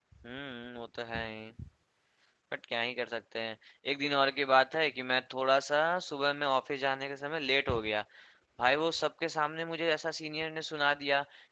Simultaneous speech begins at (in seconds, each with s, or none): none